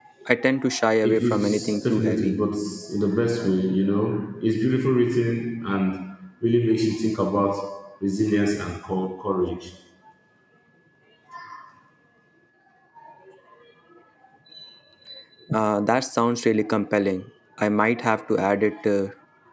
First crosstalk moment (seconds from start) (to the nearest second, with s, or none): 1 s